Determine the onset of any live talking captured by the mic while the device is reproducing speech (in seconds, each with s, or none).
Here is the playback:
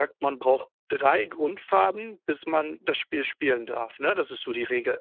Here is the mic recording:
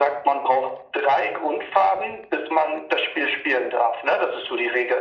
none